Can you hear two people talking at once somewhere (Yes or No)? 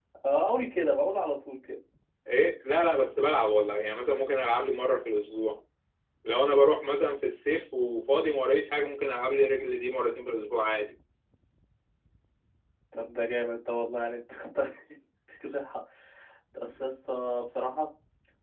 No